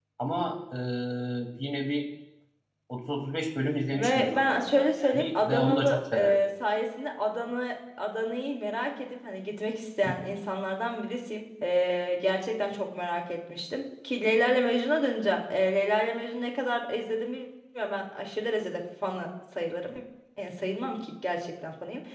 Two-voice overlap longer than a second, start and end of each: 3.9-6.4

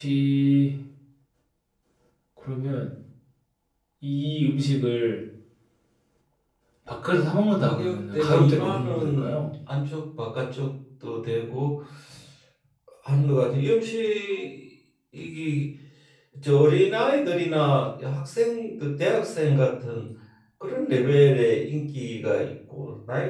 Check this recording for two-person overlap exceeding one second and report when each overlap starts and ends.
7.5-9.4

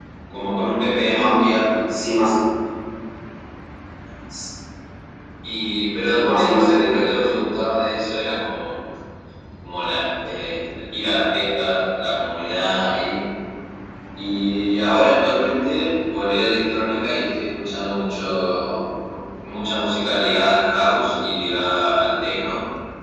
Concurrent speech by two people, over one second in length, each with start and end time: 6.0-7.4

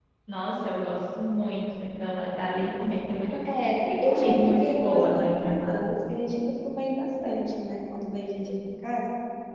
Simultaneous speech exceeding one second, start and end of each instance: 3.5-5.8

